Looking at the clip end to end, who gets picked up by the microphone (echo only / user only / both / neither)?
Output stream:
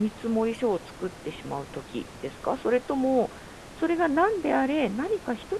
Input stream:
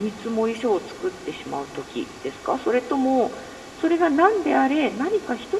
echo only